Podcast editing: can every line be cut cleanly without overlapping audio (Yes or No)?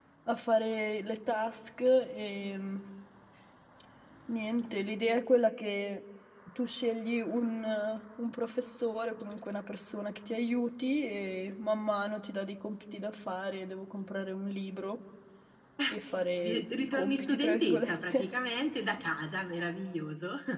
No